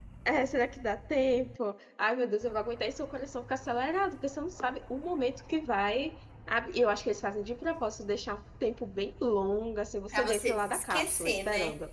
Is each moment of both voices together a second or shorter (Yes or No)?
No